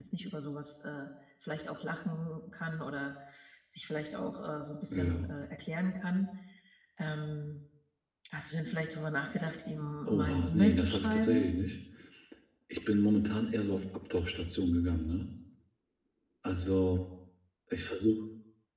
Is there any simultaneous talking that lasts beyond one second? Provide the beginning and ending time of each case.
10.1-11.5

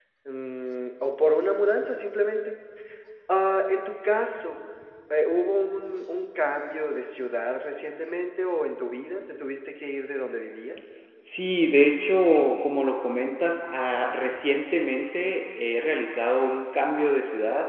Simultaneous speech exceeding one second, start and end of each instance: none

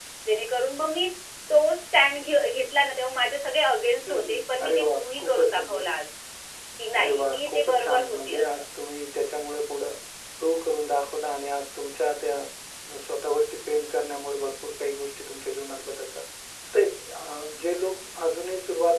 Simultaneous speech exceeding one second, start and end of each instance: 4.1-5.8, 7.0-8.5

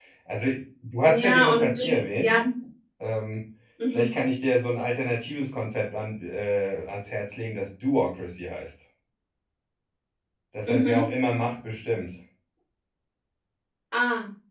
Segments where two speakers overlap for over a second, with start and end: 1.1-2.3

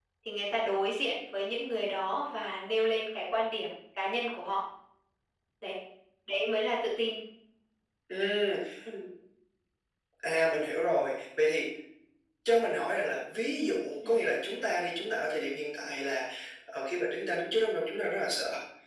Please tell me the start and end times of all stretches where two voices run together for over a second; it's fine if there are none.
none

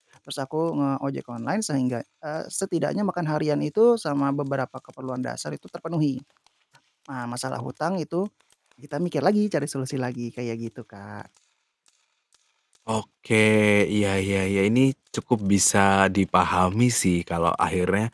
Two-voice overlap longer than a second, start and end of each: none

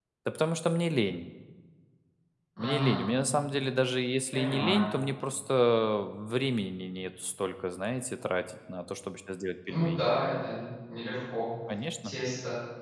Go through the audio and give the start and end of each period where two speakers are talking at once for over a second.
none

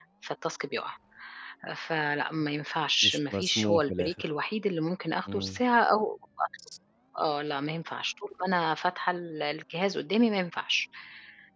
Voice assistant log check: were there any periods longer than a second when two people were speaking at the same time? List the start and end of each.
3.0-4.3

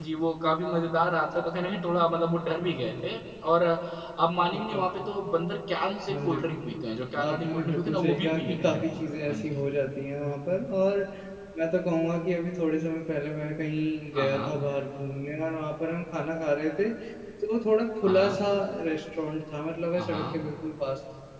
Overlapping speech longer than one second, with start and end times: 7.2-9.6

